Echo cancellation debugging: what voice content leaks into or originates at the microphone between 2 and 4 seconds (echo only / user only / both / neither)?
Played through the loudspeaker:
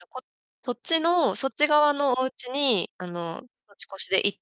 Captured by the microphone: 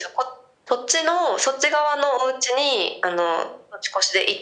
echo only